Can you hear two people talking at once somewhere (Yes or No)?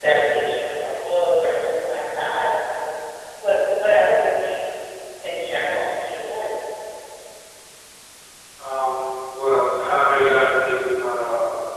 No